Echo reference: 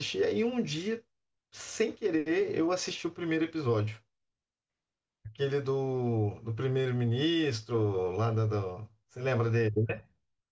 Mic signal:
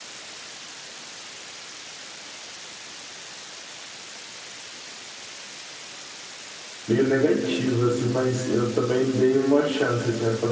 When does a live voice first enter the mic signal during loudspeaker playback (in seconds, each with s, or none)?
6.8 s